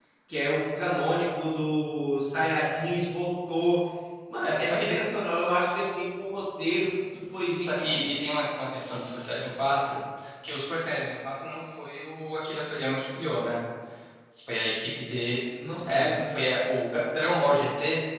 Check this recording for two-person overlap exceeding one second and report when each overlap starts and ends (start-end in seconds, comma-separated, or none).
none